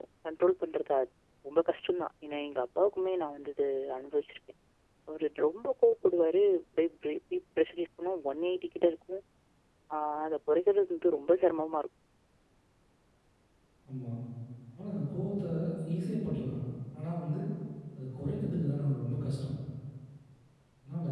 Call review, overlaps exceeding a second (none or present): none